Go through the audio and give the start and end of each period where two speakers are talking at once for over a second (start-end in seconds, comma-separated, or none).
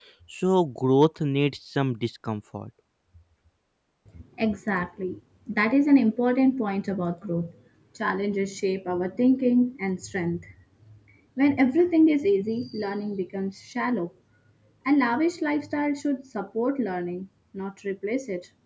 none